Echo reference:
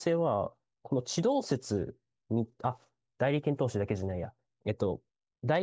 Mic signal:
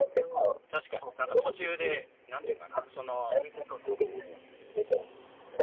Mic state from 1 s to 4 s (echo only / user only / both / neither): both